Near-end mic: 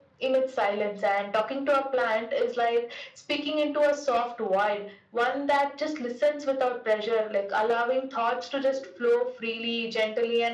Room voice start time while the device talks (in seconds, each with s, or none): none